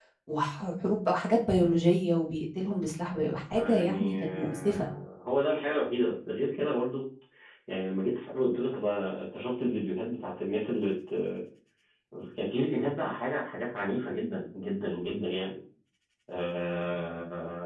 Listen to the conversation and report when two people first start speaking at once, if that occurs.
3.5 s

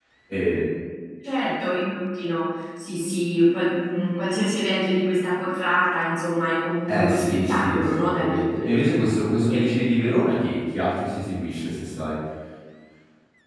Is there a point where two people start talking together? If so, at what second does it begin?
6.9 s

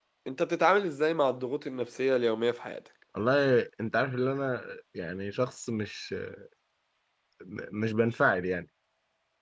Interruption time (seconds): none

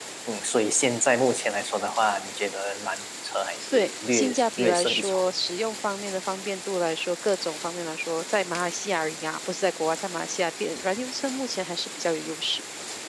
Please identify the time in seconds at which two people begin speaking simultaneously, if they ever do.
3.7 s

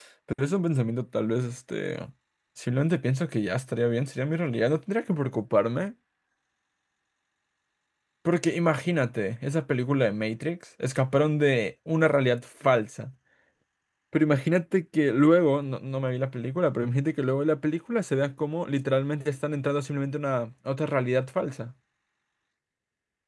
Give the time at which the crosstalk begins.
none

